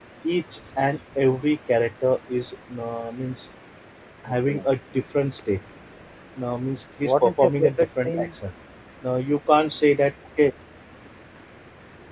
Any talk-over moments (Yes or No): Yes